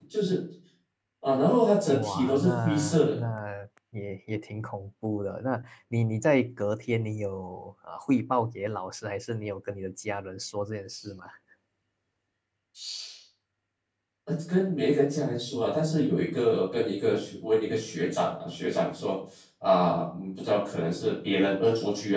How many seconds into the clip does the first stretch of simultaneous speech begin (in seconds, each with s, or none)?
1.9 s